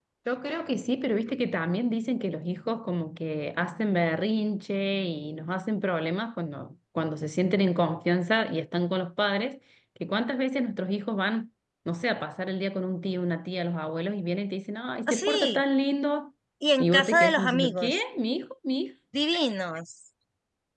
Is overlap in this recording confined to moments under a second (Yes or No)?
No